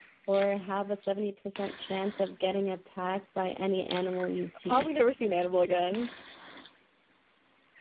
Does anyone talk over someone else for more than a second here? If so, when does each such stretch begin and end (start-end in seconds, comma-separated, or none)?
none